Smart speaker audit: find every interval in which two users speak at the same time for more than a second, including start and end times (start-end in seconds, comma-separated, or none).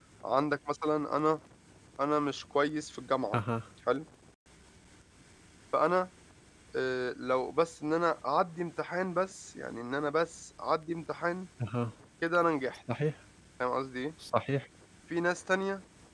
none